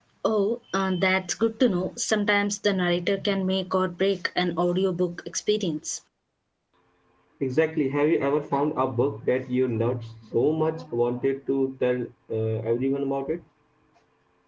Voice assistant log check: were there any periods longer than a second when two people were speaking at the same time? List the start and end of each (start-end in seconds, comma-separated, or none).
none